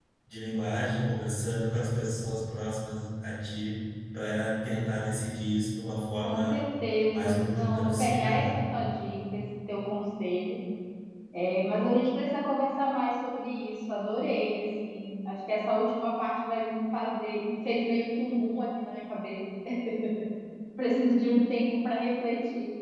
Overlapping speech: Yes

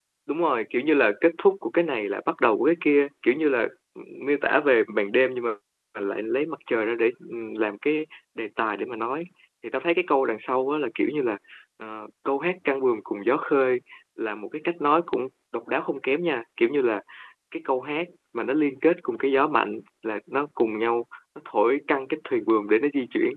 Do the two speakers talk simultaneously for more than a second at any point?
No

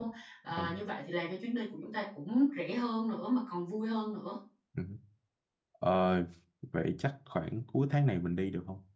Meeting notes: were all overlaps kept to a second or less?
Yes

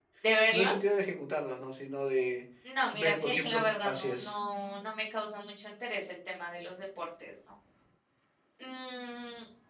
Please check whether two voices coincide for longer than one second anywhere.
Yes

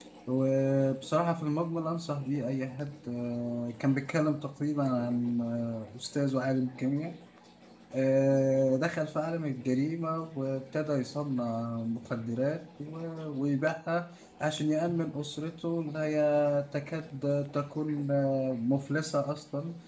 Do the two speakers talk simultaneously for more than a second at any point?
No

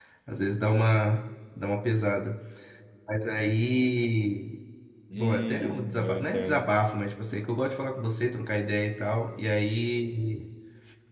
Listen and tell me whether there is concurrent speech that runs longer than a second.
Yes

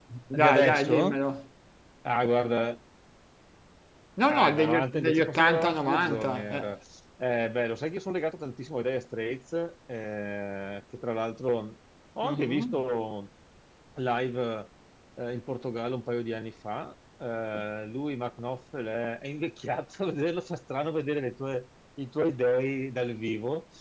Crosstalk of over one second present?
Yes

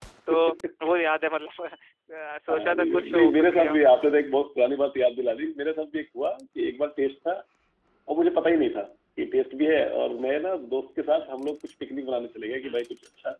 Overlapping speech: Yes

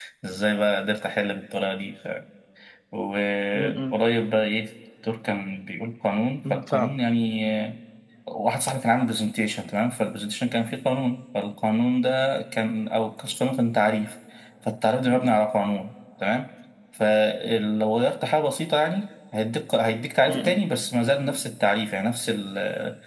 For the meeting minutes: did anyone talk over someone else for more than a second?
No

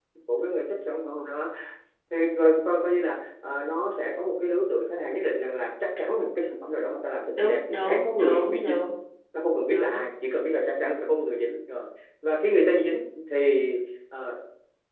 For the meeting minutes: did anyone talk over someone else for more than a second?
Yes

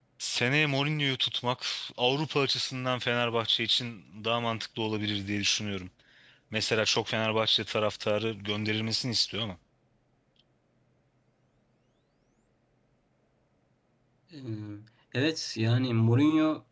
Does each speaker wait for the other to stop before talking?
Yes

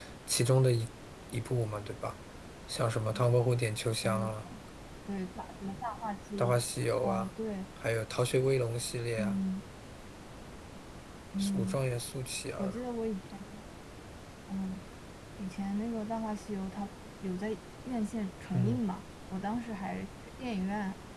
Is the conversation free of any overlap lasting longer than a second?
Yes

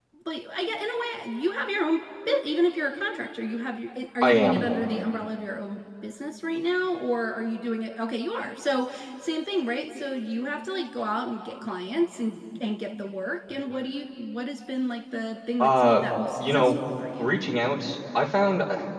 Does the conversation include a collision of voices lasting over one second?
No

